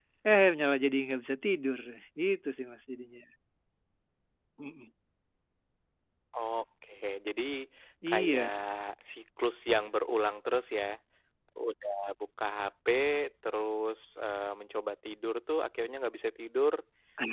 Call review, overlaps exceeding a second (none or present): none